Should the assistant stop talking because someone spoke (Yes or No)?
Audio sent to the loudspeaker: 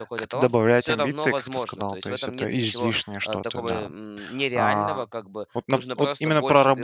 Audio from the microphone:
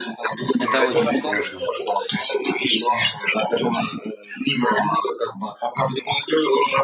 Yes